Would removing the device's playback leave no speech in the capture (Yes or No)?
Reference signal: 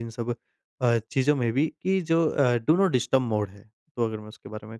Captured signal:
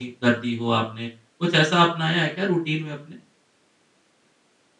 No